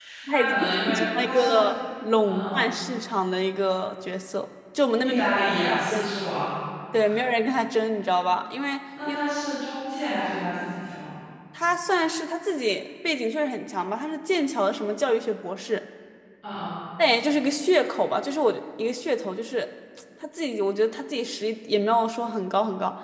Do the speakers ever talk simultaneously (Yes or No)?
Yes